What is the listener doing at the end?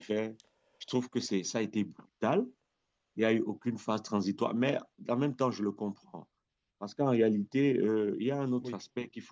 listening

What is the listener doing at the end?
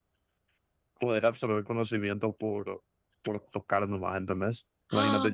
listening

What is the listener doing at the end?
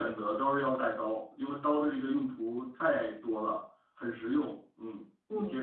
taking over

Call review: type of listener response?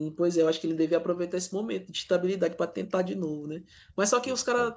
listening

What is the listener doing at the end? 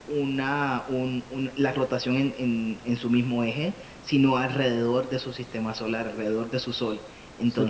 taking over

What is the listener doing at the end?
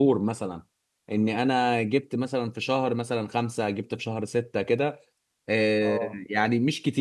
listening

